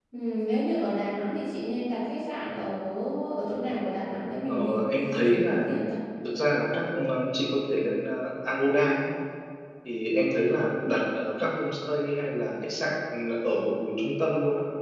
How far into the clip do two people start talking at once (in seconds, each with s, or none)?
4.5 s